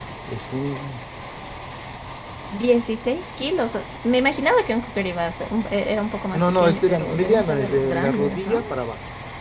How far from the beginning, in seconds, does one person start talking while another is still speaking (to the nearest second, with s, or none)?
6 s